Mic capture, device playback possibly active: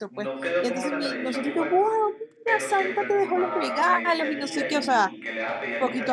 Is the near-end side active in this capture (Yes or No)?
Yes